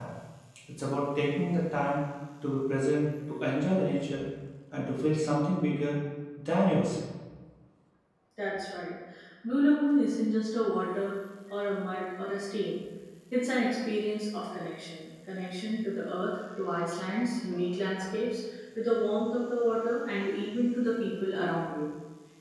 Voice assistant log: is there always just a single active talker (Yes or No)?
Yes